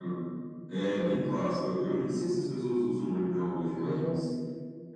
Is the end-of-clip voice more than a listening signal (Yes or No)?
No